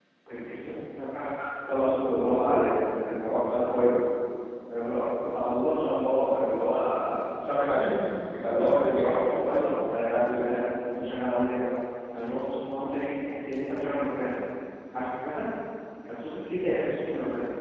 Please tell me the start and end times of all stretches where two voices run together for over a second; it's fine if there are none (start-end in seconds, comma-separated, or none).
8.5-9.7